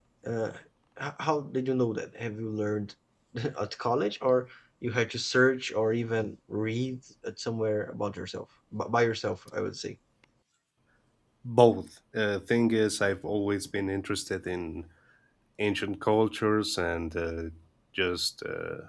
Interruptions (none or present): none